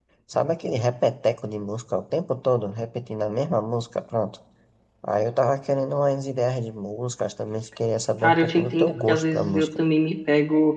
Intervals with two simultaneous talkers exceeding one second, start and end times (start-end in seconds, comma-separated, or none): 8.2-9.7